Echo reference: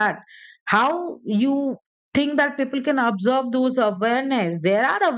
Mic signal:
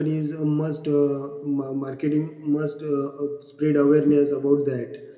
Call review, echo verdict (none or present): none